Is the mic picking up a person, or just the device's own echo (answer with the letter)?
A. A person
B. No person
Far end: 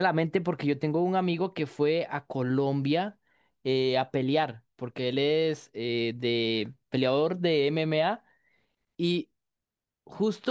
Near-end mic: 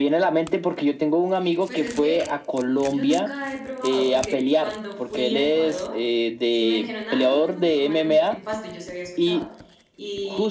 A